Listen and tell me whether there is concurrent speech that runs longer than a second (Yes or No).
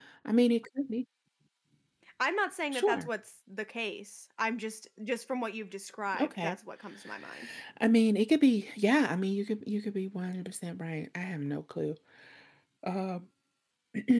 No